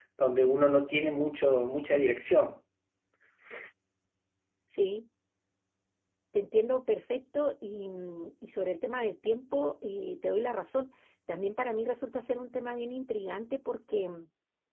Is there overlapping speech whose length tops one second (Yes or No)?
No